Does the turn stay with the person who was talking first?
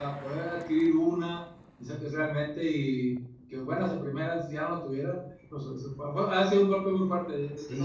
No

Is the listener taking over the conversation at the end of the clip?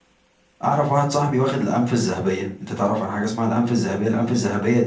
No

